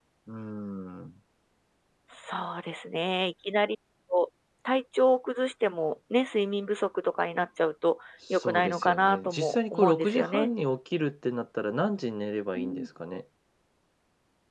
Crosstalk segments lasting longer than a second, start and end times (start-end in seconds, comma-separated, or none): 8.3-10.5